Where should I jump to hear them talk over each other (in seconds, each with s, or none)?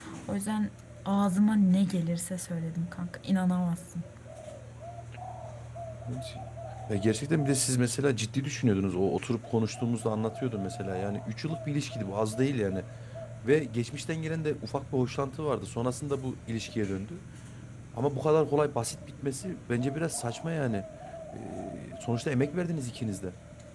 none